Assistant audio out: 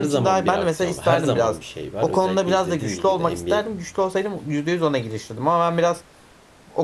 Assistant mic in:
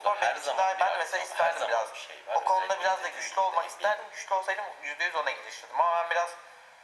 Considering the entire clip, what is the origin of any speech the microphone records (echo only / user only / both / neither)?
echo only